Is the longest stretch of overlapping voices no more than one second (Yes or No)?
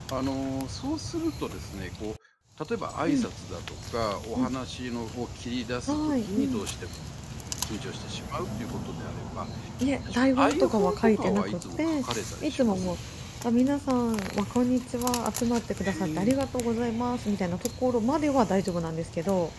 No